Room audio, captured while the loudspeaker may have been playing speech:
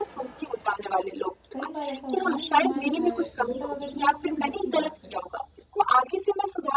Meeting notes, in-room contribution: present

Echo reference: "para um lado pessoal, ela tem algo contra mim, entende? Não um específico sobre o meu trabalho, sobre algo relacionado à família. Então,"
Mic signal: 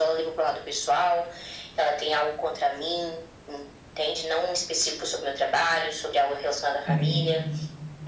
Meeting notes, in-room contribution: present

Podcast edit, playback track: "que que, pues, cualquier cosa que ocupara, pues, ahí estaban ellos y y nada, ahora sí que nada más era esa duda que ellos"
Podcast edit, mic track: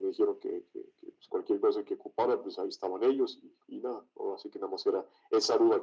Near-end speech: none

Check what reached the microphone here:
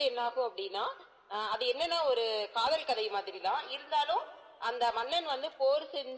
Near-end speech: none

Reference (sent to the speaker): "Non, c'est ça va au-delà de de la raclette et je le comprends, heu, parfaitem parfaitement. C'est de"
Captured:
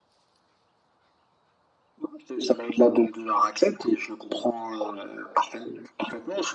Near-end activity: none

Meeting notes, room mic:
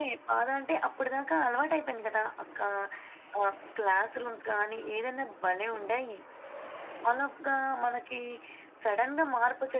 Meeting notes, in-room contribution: none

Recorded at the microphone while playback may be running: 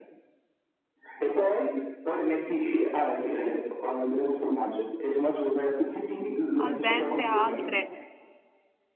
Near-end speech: present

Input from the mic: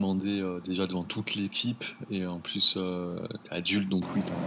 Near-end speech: none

